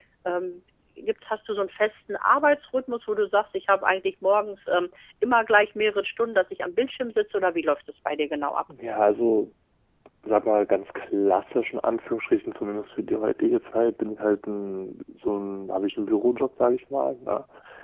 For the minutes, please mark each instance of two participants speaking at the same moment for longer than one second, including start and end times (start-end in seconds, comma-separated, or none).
none